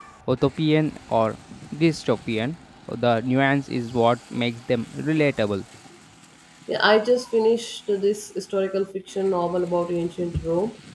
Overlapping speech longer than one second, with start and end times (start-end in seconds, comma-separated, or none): none